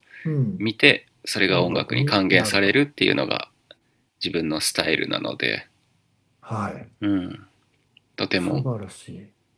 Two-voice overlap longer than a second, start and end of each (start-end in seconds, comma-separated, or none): 1.5-2.7